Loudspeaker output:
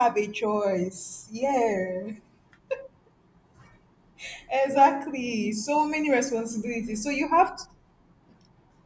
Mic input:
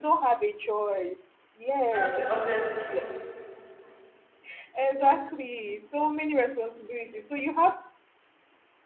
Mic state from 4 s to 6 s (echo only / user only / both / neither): echo only